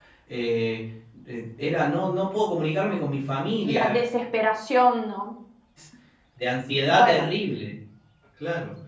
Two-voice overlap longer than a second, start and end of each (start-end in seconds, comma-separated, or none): none